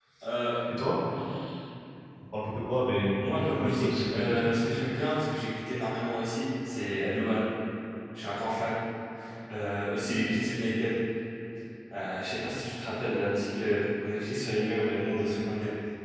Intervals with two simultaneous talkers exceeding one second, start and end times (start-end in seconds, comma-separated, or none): 3.2-4.5